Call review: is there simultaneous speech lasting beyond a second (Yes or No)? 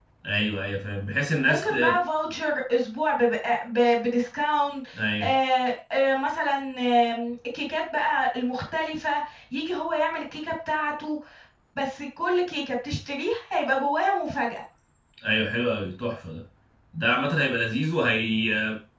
No